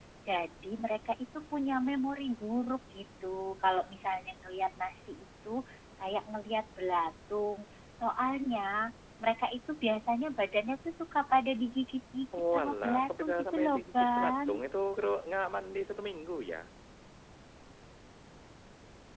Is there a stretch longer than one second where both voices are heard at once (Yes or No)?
Yes